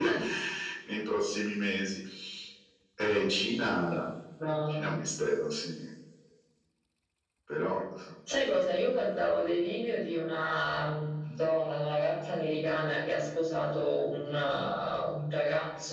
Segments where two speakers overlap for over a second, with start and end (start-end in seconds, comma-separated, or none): none